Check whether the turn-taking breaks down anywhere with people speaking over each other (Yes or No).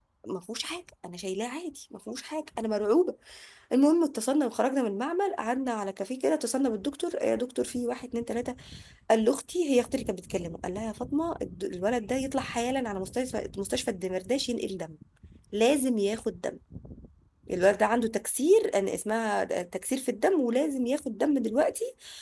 No